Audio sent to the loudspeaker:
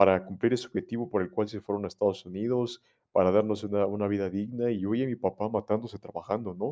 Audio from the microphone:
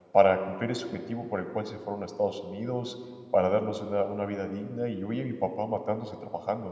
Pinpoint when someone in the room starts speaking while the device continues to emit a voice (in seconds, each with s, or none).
none